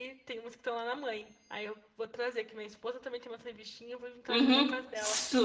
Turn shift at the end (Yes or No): Yes